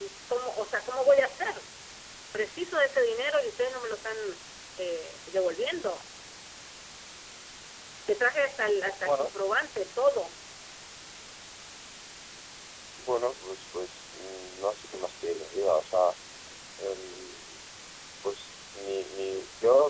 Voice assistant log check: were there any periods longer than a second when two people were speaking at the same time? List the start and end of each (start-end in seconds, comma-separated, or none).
none